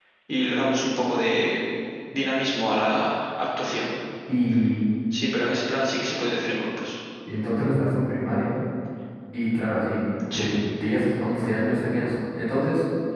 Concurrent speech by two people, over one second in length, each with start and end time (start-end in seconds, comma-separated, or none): none